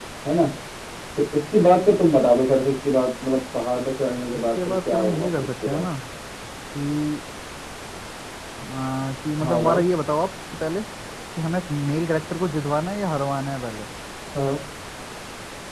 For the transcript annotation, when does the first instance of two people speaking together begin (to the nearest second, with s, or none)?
4 s